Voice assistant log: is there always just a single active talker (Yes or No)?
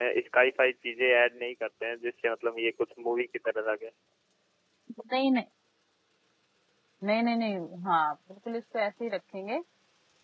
Yes